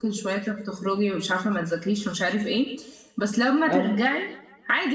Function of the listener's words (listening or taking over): listening